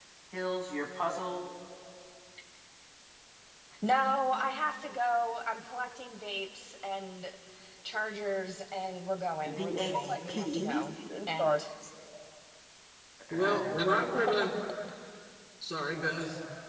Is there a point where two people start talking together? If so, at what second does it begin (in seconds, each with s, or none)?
9.4 s